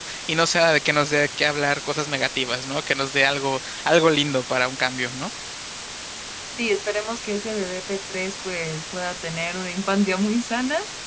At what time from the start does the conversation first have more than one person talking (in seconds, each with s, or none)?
none